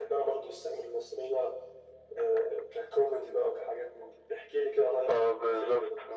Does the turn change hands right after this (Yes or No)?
Yes